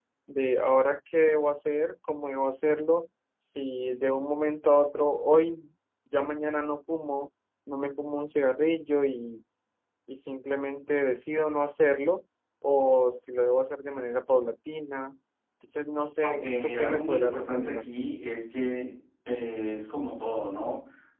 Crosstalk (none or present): present